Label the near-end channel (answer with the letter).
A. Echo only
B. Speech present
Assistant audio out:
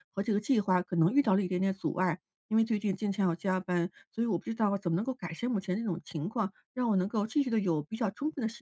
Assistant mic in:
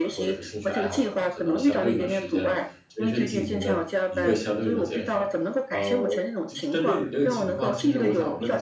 B